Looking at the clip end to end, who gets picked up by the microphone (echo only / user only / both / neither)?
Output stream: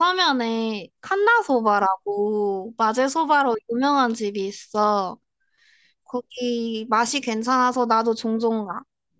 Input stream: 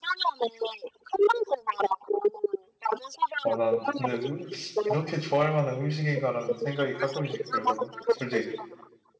both